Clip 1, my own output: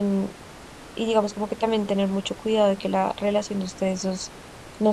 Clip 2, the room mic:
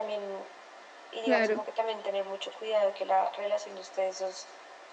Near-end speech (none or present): present